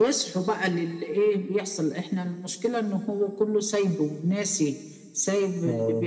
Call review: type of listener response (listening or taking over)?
listening